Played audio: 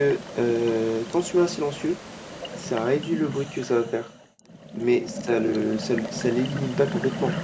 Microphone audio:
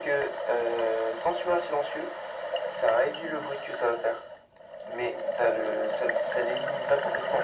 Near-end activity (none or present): none